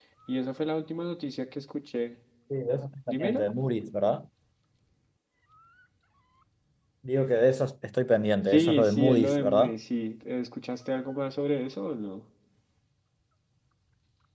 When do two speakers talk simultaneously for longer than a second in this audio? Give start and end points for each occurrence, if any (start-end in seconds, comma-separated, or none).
8.5-9.7